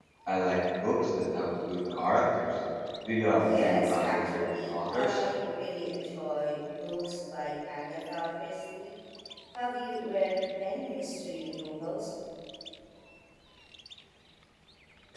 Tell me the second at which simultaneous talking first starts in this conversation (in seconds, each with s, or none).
3.4 s